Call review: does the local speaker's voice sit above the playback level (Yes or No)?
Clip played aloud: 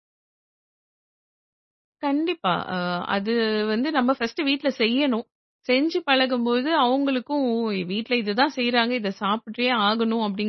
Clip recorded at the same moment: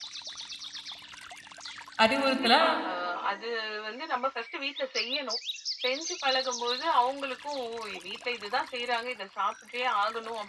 Yes